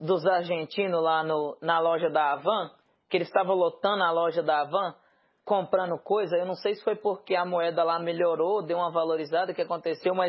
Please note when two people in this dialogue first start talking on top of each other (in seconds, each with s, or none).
none